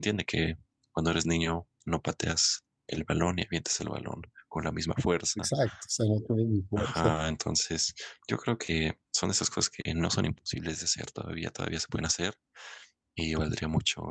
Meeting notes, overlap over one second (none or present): none